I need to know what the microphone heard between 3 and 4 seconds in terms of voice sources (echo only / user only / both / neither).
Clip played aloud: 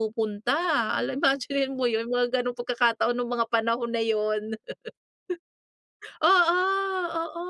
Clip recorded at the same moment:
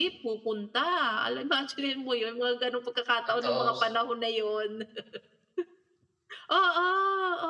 both